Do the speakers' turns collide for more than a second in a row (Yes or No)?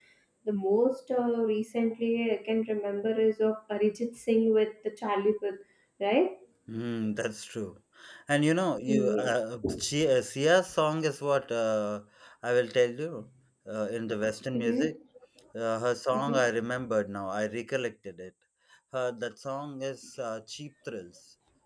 No